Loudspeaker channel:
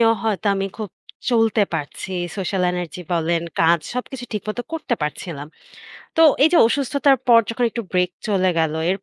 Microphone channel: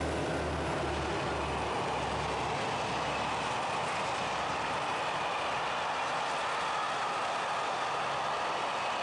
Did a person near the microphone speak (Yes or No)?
No